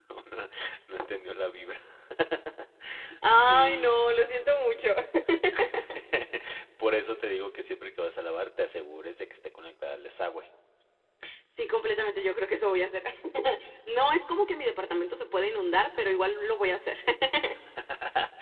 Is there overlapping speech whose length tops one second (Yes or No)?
No